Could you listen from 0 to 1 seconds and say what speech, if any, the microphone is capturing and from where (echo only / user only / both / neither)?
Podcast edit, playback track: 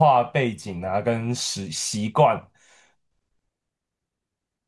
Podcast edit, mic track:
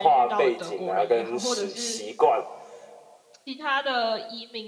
both